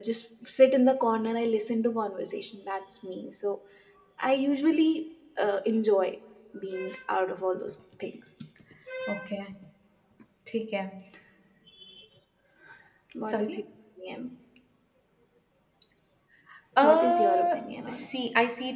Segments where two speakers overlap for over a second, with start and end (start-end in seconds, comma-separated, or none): 16.8-18.1